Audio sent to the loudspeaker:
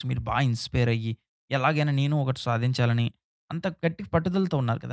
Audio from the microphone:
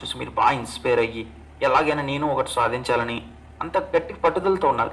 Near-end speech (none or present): none